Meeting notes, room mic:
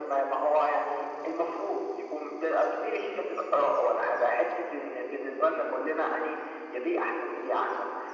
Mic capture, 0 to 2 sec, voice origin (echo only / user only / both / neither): echo only